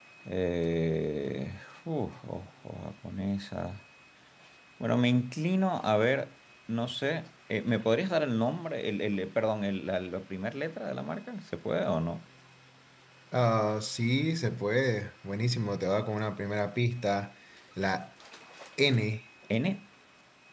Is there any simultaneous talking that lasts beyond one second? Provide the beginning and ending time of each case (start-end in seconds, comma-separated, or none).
none